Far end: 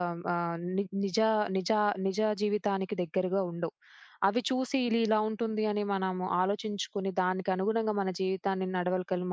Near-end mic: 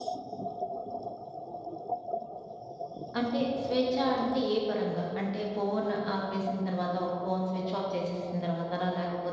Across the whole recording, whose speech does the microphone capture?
user only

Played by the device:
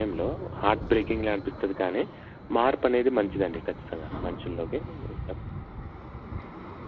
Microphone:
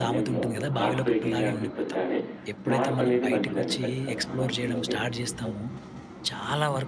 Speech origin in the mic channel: both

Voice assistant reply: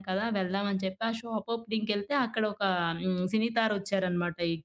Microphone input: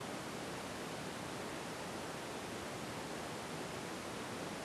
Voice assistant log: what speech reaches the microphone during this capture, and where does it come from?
neither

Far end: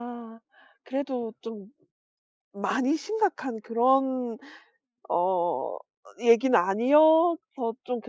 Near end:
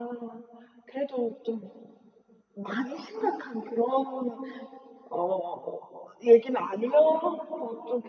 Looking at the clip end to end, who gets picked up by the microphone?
echo only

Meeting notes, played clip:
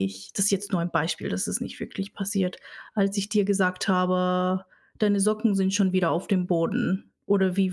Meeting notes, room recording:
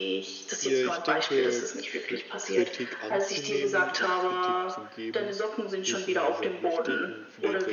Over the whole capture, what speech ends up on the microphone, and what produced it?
both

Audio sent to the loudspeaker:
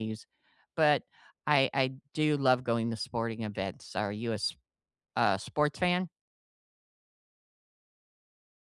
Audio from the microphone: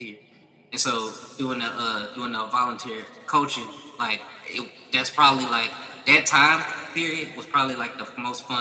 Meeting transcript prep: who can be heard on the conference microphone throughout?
user only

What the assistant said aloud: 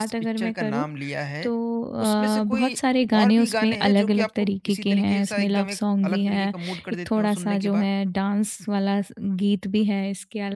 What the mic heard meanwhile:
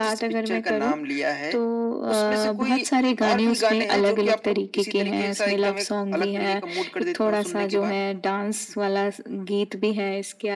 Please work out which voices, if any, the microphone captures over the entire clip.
echo only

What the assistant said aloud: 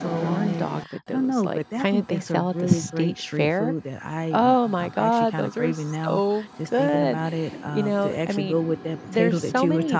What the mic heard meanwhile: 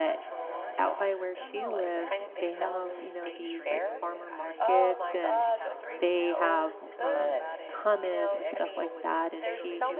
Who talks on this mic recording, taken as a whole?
both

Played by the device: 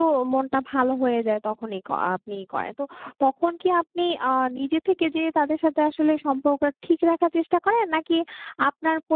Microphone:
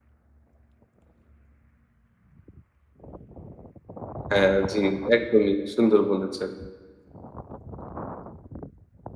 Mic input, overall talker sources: user only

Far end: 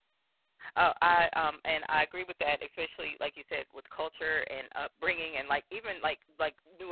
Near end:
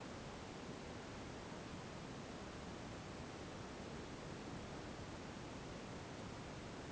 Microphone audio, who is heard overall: neither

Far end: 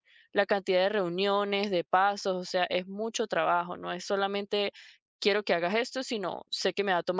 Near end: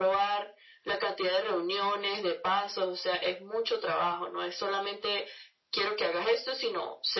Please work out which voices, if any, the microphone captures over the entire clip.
echo only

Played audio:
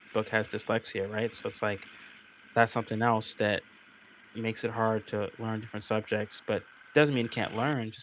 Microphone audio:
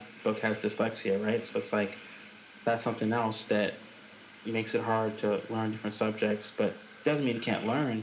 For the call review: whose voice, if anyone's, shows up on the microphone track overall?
echo only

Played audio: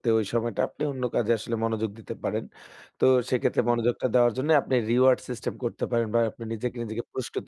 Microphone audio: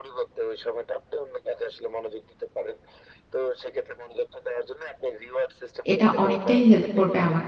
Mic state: both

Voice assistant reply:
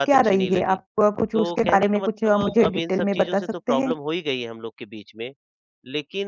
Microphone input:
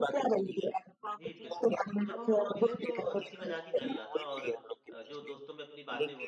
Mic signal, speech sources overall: both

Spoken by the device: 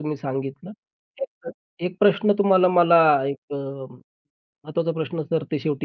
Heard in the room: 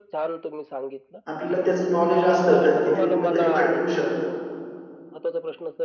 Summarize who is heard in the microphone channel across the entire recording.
both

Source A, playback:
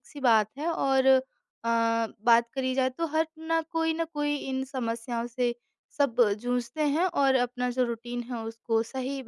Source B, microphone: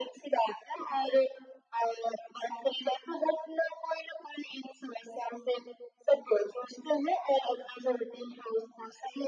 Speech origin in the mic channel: echo only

